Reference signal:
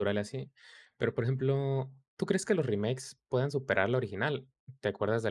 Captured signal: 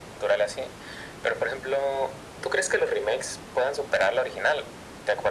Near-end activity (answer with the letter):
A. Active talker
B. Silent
B